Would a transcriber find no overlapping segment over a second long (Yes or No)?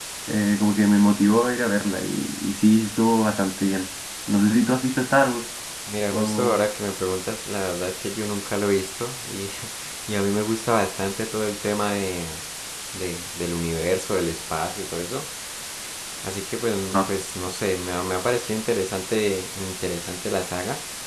Yes